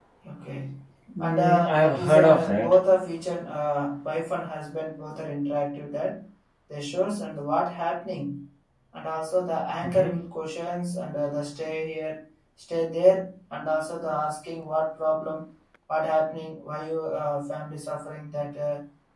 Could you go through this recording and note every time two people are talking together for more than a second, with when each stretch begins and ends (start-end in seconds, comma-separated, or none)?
1.2-2.8